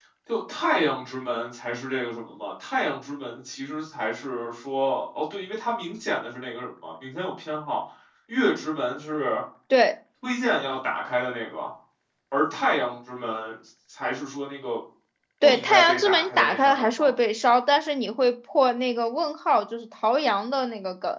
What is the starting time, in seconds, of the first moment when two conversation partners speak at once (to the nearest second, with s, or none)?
15 s